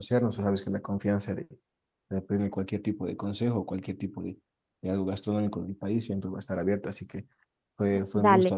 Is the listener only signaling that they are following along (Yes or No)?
Yes